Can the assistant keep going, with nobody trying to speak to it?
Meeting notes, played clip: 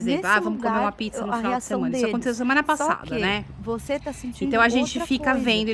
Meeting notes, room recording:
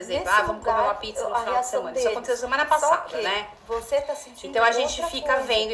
Yes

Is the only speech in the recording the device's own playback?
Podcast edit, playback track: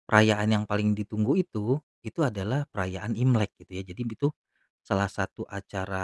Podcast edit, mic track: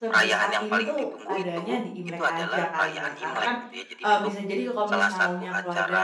No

